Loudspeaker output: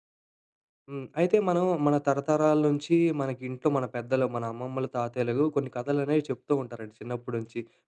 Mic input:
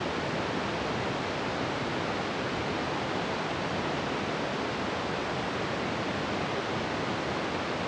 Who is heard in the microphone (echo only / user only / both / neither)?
neither